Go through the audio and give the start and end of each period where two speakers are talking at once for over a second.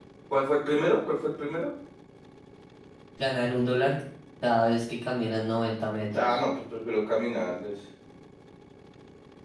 none

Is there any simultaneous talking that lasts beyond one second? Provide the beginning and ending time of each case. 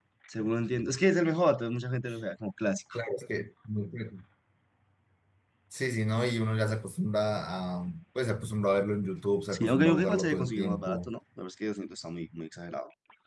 9.5-11.1

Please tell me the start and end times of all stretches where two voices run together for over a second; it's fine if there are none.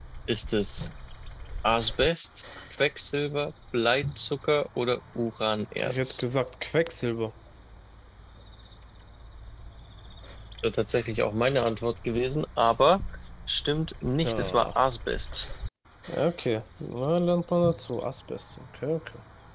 none

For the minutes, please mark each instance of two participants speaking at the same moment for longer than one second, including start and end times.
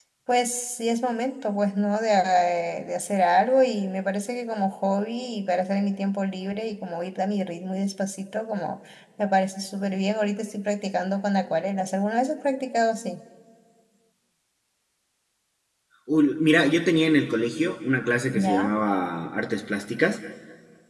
none

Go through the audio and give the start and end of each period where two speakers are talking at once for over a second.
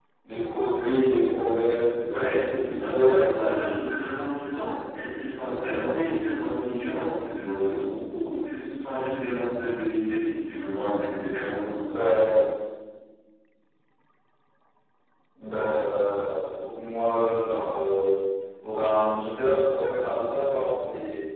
2.1-3.5

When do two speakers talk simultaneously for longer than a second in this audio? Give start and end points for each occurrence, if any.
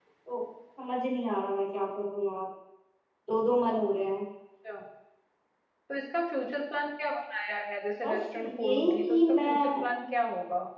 8.0-9.8

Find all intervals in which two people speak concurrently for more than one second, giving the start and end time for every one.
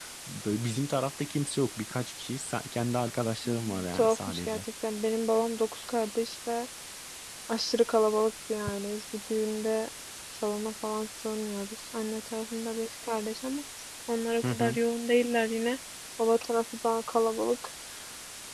3.4-4.6

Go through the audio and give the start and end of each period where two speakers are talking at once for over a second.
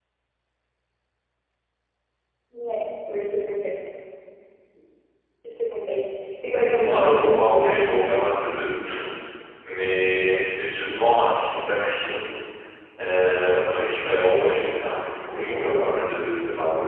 6.6-7.8

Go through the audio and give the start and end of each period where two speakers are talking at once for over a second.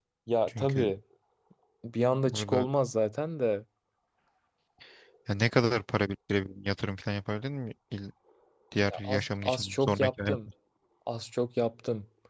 8.8-10.4

